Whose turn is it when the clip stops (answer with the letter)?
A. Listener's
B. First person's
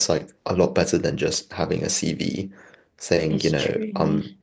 B